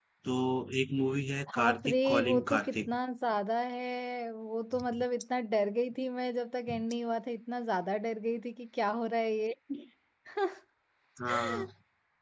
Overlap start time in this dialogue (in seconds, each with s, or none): 1.6 s